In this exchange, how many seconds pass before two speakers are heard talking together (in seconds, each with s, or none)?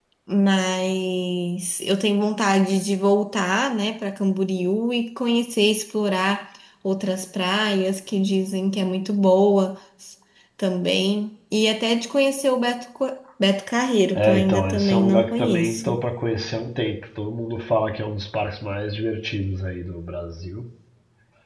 14.1 s